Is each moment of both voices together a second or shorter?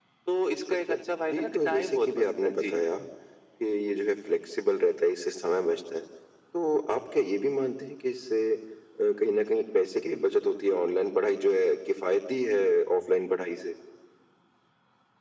No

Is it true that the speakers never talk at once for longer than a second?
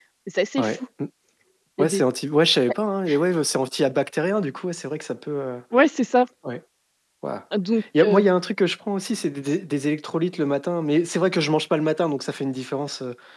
Yes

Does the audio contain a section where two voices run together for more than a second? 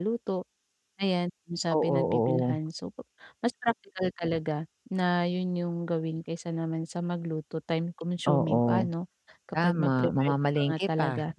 Yes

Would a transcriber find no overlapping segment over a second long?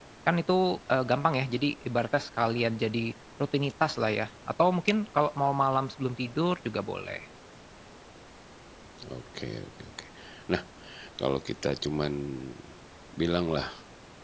Yes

